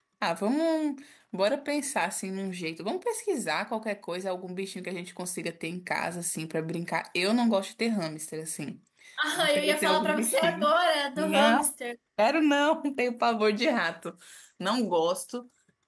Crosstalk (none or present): present